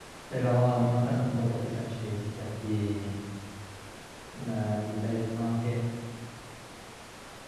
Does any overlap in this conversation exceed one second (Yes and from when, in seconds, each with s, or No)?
No